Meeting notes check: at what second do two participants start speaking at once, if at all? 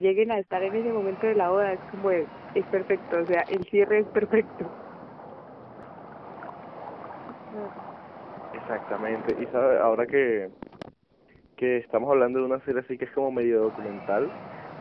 none

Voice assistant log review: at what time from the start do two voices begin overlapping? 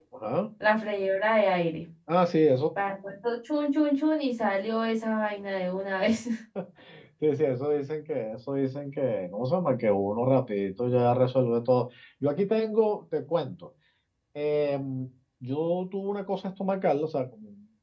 none

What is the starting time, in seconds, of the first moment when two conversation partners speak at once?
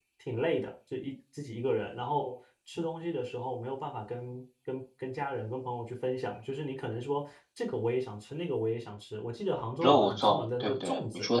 10 s

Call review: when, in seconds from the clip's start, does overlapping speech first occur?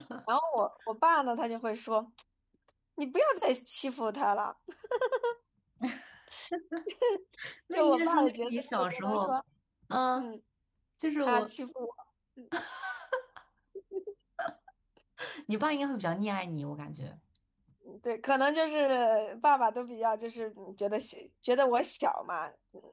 8 s

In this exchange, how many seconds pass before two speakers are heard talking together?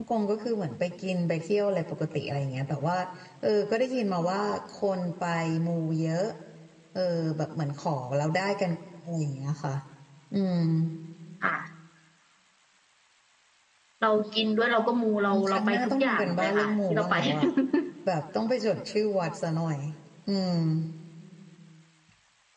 15 s

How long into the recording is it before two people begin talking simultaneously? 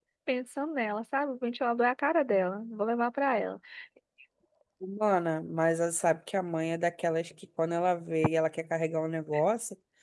none

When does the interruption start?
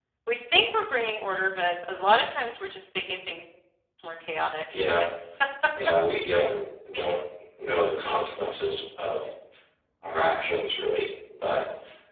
none

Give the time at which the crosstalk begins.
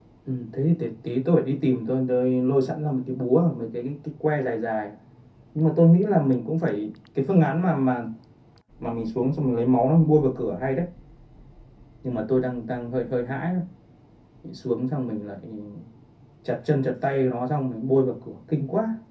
none

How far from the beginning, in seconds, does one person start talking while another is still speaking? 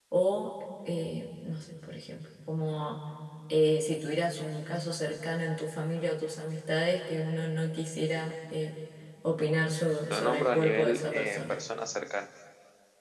10 s

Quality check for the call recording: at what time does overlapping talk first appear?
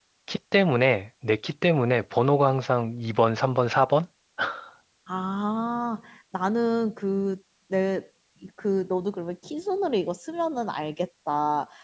none

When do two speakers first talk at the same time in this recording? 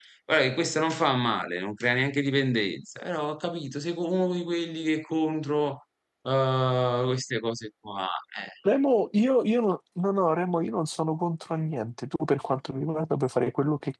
none

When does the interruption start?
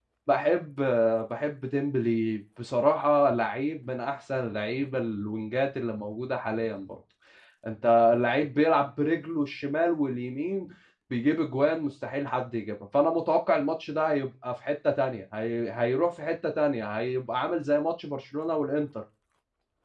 none

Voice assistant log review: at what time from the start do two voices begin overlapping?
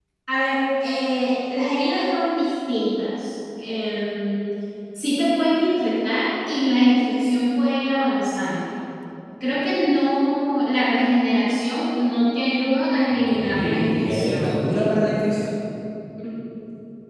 13 s

